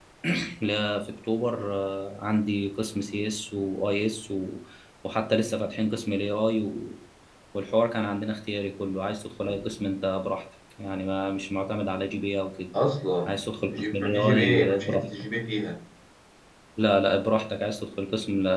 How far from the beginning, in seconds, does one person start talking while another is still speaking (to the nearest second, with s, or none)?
14 s